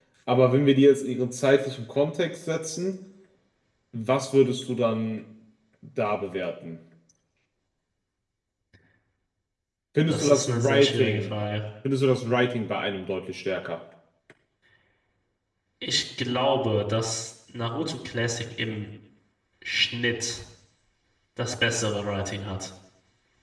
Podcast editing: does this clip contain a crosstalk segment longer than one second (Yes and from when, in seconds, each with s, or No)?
Yes, from 10.1 s